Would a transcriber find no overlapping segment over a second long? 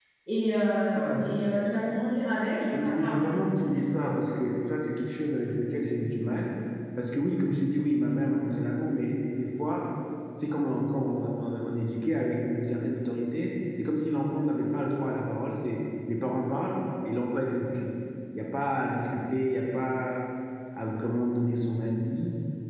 Yes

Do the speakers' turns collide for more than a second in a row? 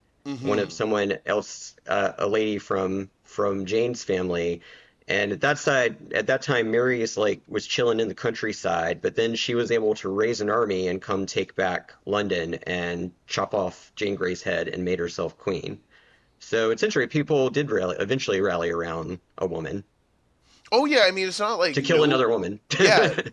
No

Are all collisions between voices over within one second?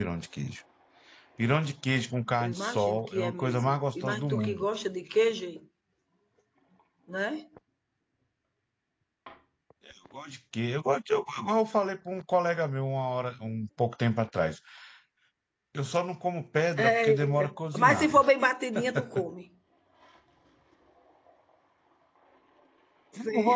No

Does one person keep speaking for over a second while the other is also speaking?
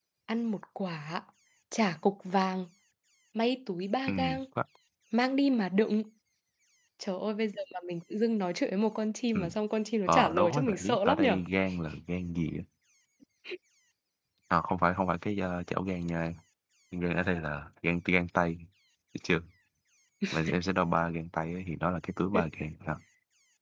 Yes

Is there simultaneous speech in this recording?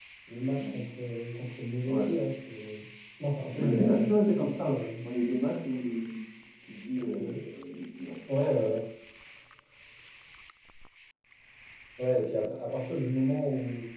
Yes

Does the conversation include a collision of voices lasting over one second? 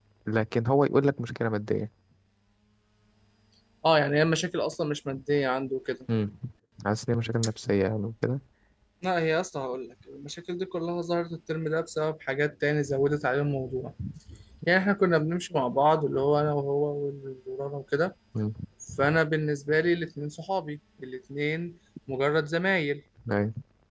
No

